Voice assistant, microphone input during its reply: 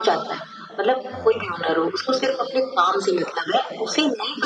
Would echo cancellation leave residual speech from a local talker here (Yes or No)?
Yes